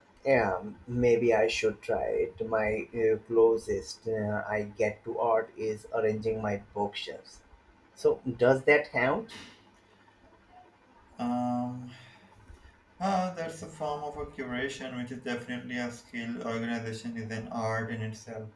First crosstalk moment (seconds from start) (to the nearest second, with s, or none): none